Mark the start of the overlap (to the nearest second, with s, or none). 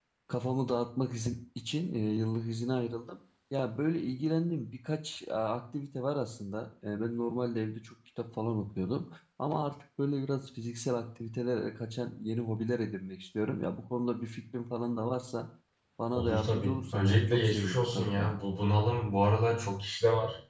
16 s